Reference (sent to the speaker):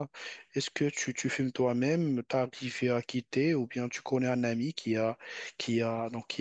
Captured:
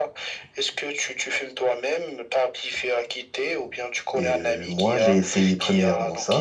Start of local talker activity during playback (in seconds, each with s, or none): 4.1 s